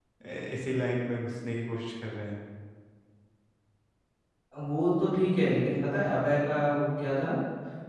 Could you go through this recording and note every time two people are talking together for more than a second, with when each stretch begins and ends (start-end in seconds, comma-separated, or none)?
none